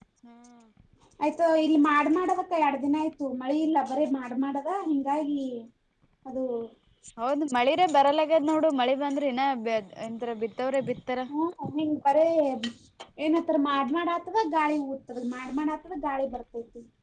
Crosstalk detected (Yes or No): No